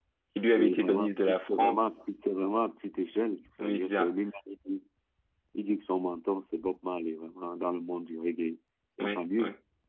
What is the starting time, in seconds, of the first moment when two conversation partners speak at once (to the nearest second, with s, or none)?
1 s